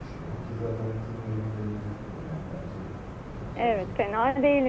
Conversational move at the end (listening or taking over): taking over